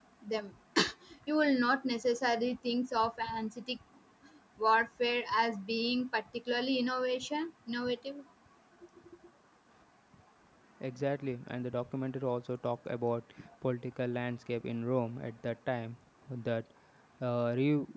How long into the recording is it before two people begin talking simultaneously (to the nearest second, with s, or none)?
none